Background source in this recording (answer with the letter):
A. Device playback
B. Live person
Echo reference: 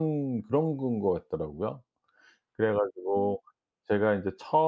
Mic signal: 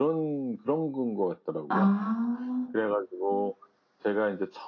A